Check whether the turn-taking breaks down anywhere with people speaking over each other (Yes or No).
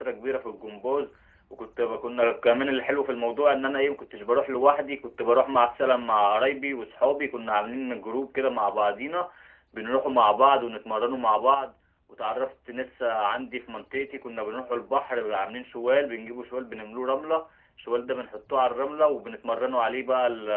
No